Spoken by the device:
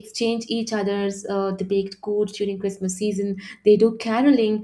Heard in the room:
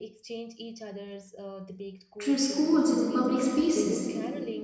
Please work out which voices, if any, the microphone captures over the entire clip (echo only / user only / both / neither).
both